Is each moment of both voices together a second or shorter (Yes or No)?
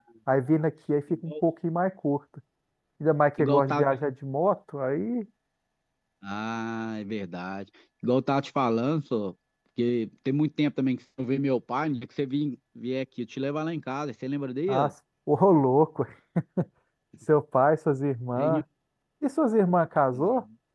Yes